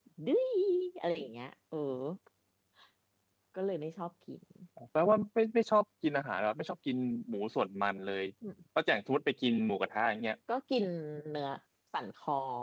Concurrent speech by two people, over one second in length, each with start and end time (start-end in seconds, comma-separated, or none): none